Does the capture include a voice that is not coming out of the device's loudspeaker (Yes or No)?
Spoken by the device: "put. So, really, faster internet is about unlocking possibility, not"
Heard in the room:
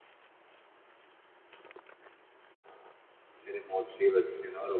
Yes